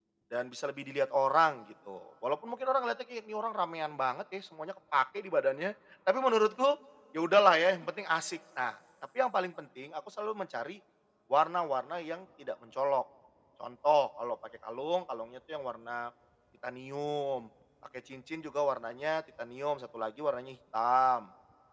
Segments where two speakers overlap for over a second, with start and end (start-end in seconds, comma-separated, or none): none